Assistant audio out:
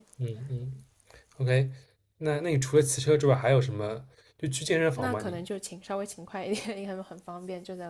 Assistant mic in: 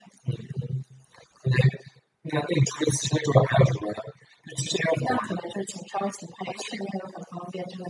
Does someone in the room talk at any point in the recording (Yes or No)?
No